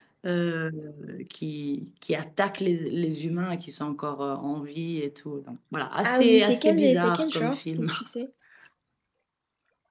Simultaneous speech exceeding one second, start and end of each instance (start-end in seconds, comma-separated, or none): 6.0-7.9